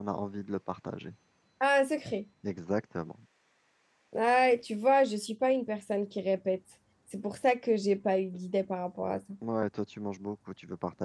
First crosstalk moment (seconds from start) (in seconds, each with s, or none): none